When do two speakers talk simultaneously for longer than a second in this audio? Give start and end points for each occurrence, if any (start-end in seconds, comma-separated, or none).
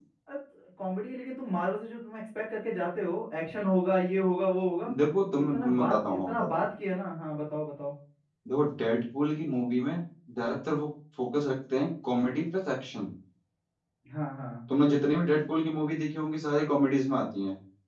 5.4-6.7